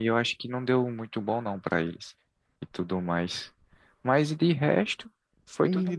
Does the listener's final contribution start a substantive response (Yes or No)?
Yes